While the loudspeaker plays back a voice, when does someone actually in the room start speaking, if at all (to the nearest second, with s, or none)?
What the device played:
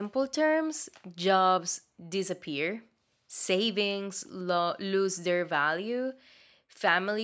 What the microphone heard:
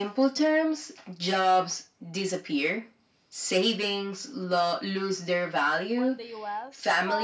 6 s